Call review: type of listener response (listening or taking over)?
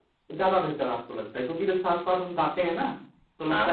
listening